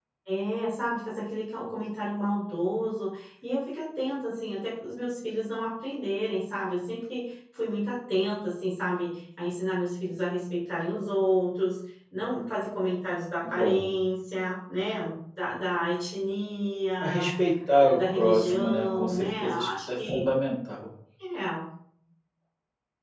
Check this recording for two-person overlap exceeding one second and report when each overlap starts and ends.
17.8-20.2

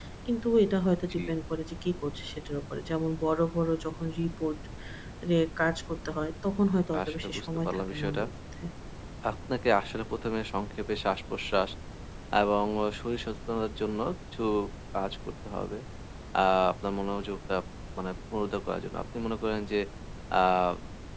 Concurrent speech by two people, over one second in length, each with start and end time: 7.0-8.2

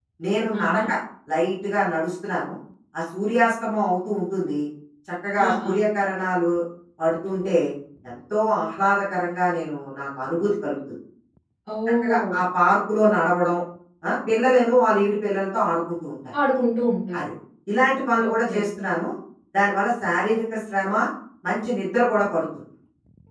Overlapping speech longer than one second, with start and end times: none

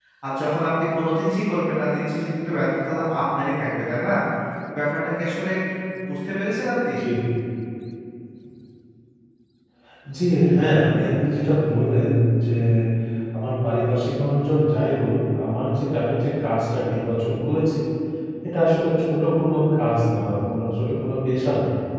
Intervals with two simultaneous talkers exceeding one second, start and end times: none

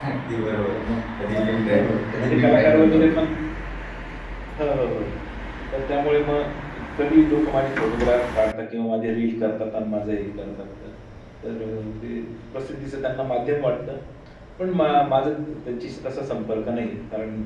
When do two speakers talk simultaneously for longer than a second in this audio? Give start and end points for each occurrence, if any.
1.3-3.2

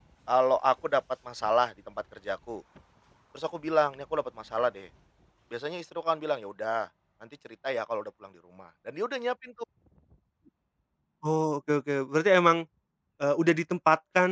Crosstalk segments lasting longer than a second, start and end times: none

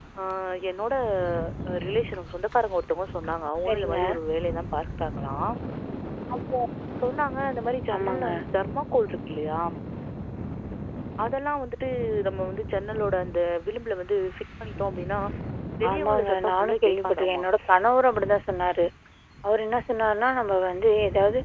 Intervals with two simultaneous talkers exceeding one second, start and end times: 15.9-17.4

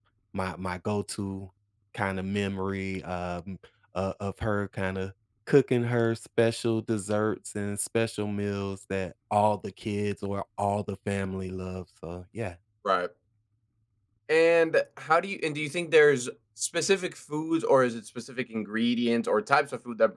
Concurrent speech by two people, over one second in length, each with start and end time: none

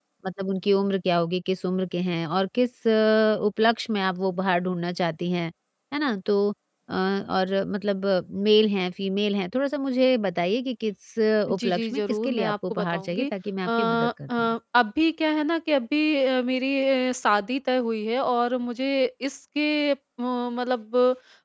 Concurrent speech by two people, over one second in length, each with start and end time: 11.5-13.3

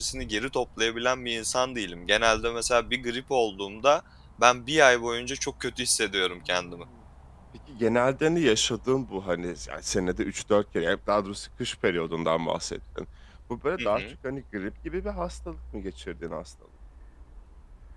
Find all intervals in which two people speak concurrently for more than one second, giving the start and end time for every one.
none

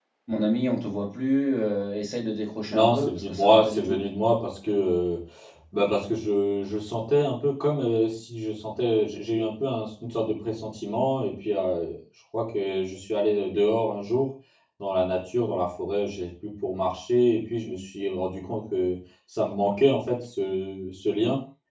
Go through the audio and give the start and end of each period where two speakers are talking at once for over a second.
2.7-4.0

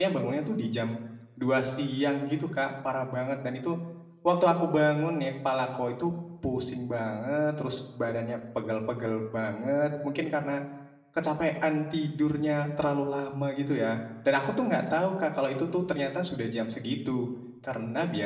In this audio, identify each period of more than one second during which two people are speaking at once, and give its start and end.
none

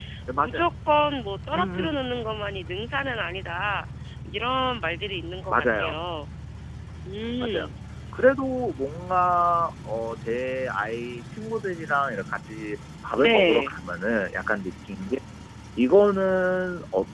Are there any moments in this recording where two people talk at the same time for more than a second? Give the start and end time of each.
none

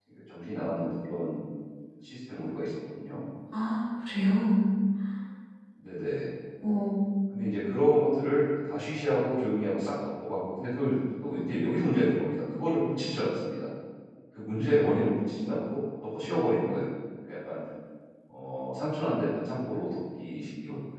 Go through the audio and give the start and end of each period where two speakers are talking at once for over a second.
none

